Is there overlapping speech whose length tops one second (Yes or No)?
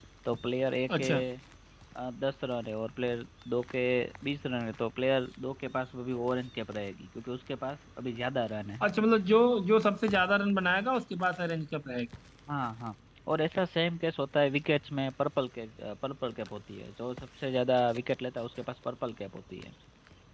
No